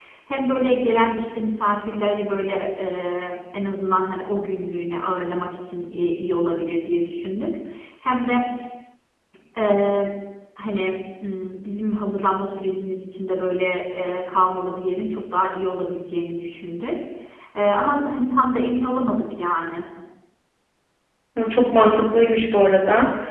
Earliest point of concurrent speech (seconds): none

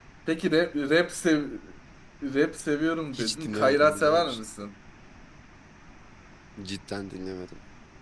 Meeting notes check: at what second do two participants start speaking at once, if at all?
3.1 s

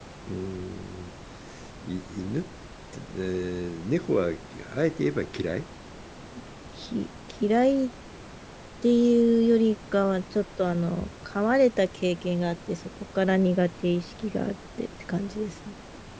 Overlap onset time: none

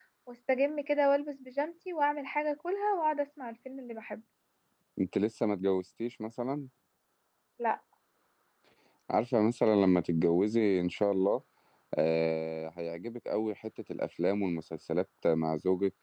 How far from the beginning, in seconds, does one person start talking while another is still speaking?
none

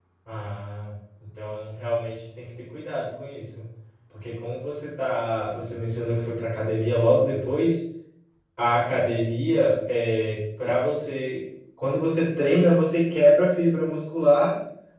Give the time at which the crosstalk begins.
none

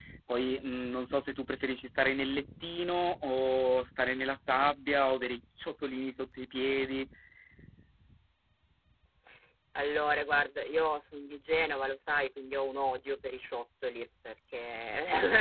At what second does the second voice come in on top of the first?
none

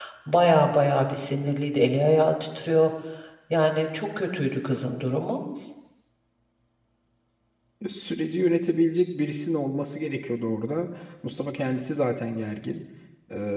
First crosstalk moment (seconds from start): none

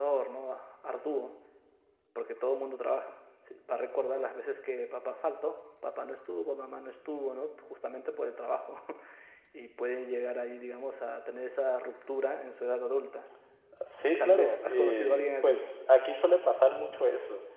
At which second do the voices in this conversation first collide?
14.2 s

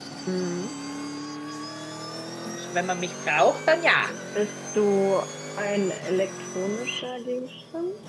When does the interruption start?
none

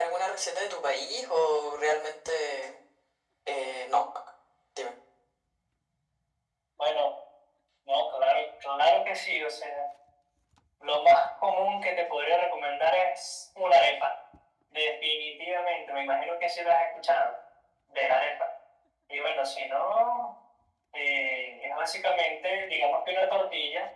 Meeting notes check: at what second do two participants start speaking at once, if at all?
none

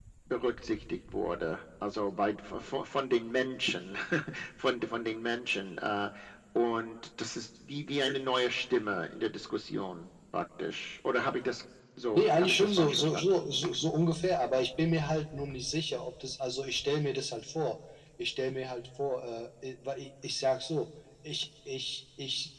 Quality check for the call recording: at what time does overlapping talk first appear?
12.1 s

